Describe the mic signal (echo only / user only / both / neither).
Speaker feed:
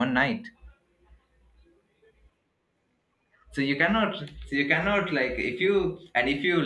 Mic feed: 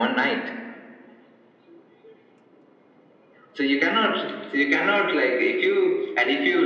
echo only